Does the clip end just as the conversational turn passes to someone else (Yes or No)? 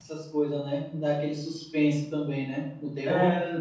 Yes